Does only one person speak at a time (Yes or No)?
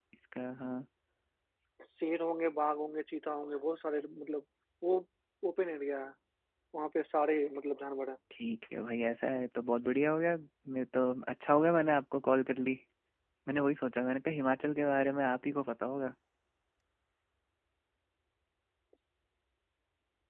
Yes